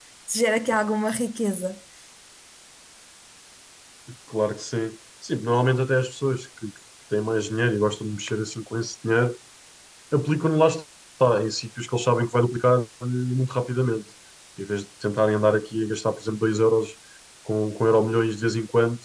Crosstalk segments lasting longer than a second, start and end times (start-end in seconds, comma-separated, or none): none